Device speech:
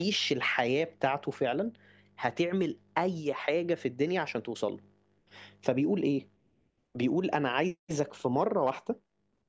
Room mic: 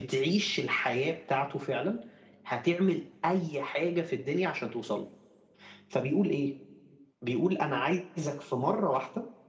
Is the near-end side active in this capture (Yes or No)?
No